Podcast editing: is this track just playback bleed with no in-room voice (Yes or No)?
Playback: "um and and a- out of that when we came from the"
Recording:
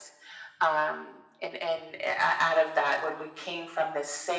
Yes